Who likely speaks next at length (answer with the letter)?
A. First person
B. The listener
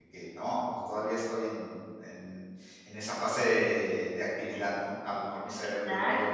B